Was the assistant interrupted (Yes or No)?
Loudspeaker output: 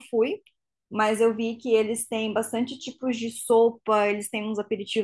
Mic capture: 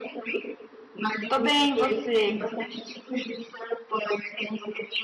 Yes